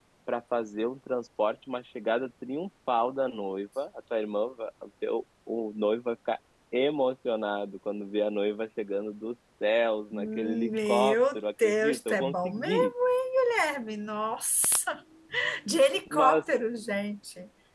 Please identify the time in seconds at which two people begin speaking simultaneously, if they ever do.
10.1 s

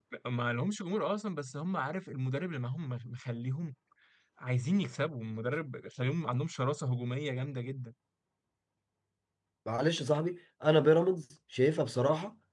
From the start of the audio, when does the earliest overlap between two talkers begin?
none

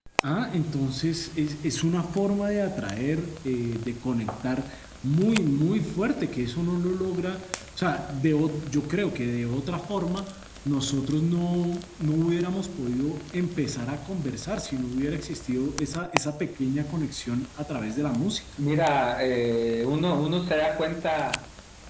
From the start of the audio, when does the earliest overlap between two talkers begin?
none

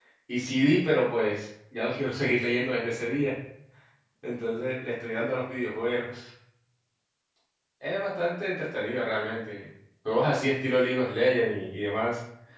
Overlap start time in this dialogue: none

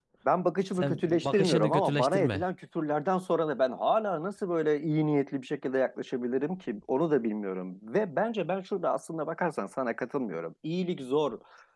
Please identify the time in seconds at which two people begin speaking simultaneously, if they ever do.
0.7 s

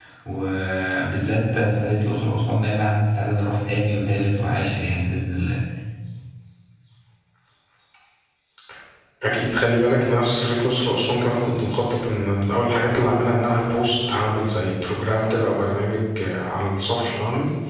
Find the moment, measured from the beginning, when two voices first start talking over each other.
none

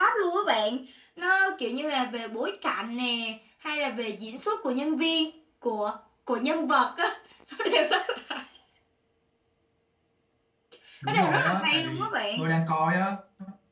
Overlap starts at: 11.1 s

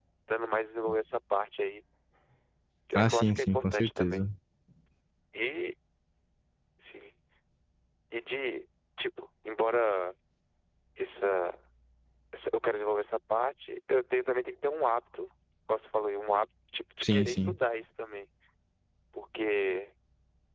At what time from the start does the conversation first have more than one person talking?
3.0 s

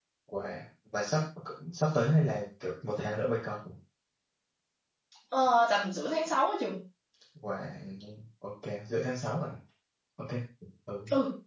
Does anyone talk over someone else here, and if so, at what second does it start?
none

